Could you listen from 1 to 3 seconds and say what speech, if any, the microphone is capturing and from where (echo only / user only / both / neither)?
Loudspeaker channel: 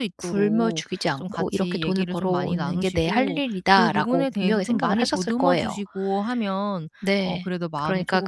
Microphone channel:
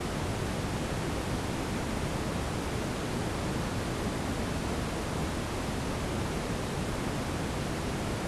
neither